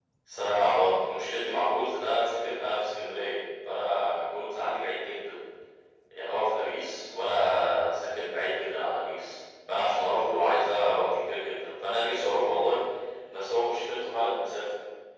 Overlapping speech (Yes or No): No